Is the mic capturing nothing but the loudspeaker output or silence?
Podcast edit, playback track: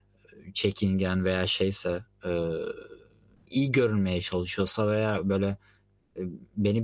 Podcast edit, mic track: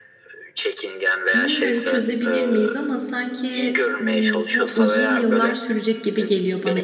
No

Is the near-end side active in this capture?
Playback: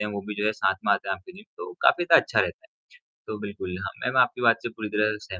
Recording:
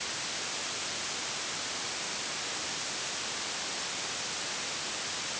No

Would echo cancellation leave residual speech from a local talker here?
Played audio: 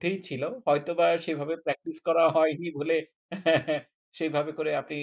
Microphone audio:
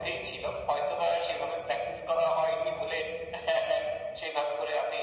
No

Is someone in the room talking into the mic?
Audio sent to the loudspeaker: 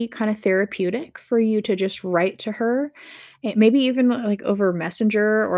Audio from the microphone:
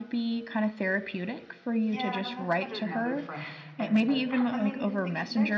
Yes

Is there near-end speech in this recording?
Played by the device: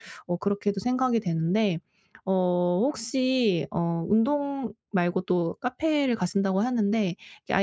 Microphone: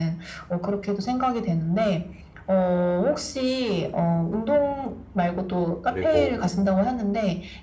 Yes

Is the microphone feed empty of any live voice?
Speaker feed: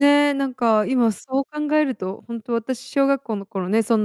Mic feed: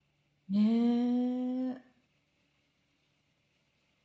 No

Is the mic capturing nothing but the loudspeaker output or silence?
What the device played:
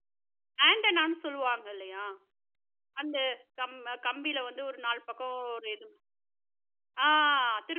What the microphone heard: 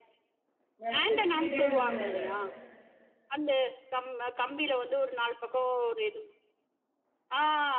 No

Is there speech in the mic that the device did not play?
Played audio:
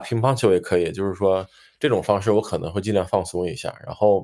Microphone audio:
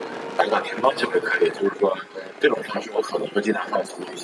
No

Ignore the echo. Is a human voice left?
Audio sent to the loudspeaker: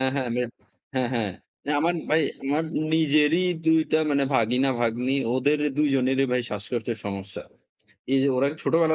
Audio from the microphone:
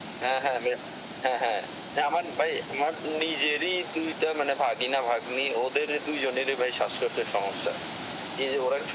No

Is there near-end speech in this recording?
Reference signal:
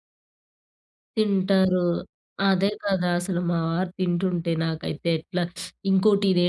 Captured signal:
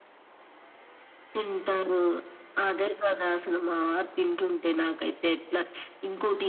No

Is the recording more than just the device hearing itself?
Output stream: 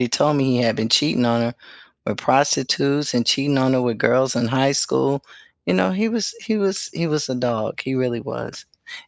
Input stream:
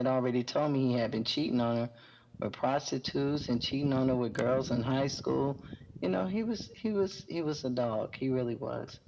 No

